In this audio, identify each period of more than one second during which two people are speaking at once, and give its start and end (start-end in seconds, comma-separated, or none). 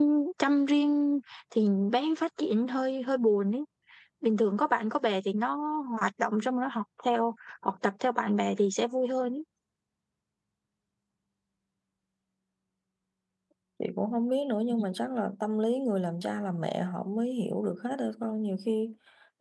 none